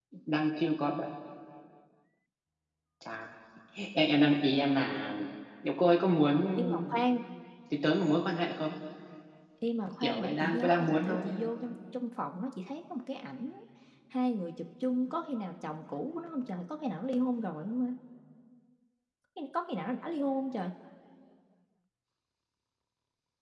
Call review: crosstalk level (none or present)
present